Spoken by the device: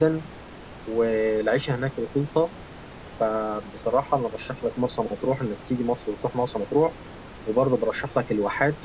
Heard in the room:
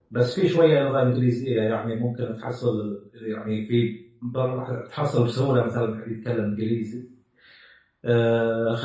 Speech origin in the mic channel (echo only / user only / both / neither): user only